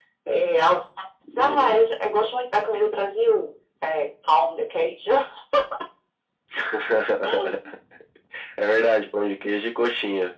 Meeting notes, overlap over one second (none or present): none